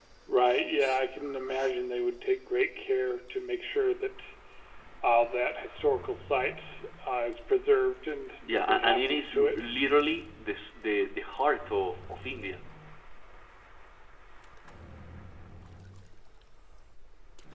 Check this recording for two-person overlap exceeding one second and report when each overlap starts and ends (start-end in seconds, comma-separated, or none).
8.4-9.7